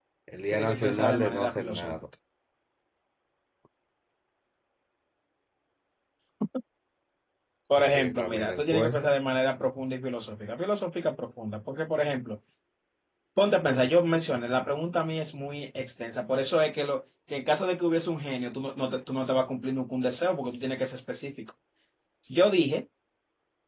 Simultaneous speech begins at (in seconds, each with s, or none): 0.5 s